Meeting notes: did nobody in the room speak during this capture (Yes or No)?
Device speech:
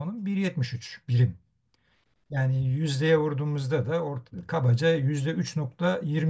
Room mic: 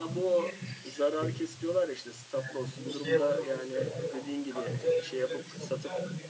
No